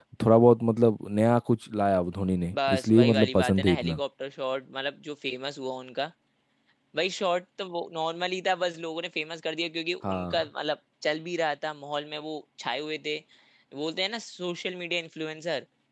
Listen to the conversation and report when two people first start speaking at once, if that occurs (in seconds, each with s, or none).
2.7 s